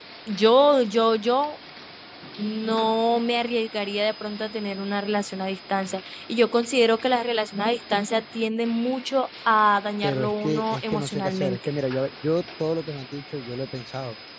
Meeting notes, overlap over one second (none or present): present